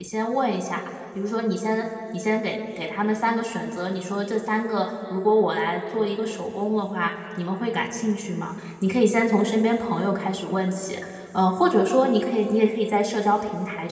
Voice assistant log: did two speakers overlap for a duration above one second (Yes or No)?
No